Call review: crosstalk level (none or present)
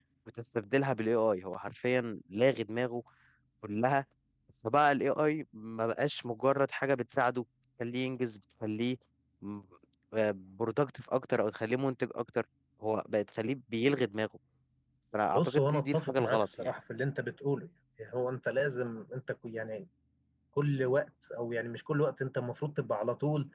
present